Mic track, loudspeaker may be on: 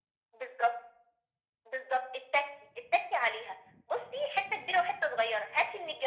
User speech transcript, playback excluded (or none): none